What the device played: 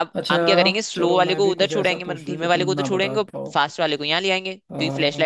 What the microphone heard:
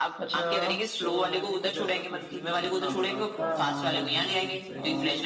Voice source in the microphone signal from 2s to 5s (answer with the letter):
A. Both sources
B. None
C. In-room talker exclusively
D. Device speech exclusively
A